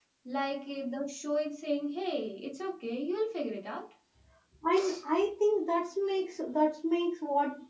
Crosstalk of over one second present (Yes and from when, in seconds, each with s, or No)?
No